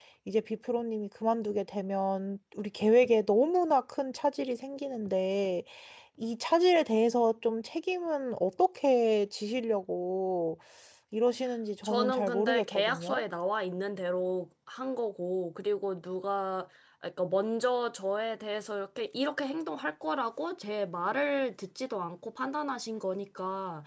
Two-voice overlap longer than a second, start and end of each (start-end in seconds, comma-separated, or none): 11.8-13.2